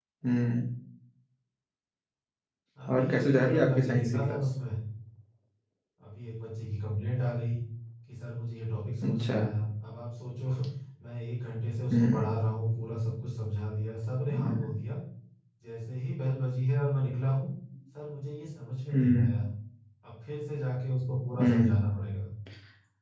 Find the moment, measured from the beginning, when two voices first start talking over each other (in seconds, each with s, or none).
2.9 s